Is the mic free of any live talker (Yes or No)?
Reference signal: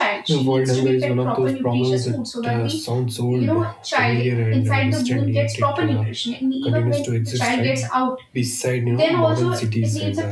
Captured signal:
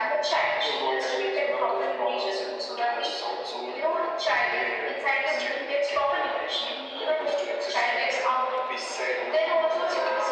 Yes